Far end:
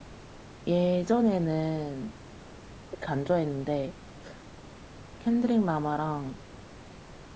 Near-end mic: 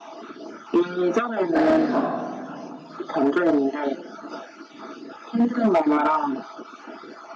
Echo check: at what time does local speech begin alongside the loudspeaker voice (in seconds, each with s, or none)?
1.5 s